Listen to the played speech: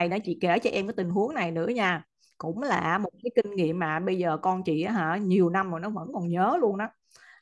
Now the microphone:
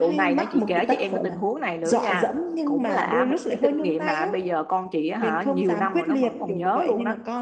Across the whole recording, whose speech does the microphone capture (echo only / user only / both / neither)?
both